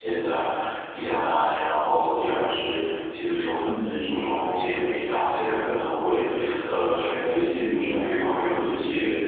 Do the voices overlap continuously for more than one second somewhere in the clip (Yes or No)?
Yes